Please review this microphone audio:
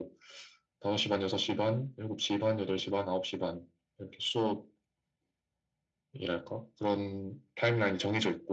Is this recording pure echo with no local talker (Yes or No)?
Yes